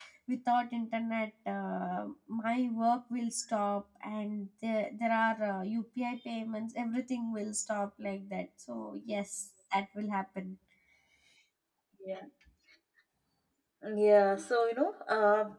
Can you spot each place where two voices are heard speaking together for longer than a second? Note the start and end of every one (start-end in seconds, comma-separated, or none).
none